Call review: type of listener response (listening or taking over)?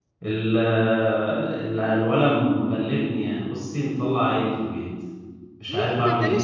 taking over